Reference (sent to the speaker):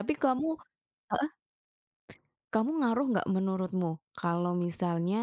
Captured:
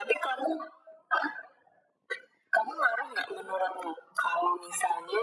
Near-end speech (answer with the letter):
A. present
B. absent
B